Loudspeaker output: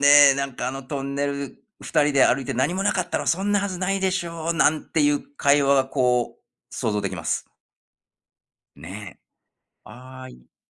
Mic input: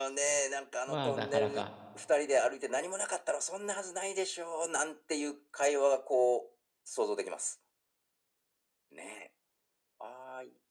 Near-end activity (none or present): present